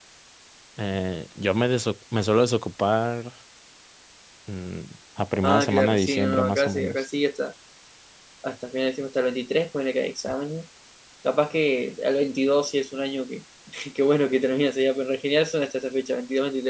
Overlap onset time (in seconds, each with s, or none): 5.4 s